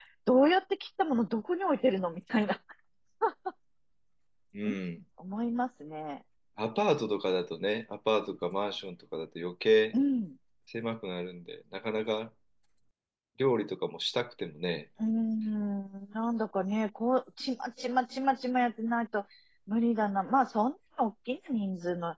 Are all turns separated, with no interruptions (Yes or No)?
Yes